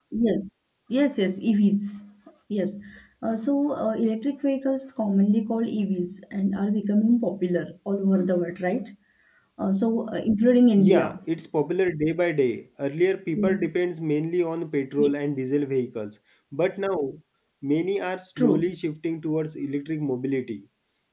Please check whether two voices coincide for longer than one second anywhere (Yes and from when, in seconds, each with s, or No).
No